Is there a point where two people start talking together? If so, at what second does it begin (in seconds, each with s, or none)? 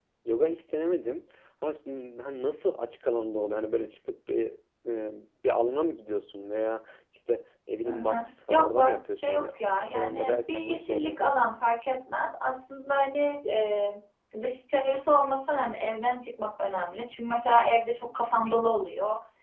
7.8 s